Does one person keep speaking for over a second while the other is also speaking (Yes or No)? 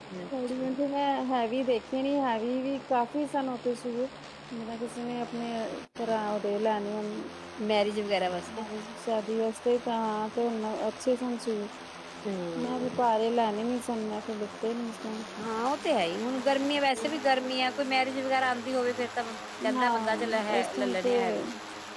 Yes